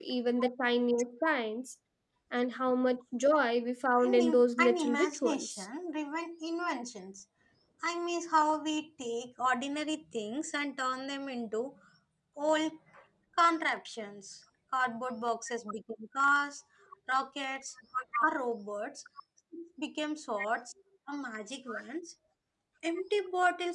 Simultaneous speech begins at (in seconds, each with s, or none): 4.0 s